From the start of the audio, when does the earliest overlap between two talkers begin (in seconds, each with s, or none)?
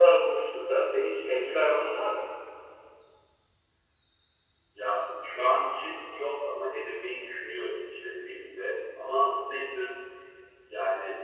none